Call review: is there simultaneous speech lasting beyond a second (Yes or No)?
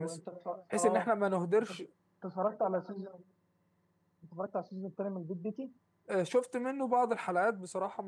No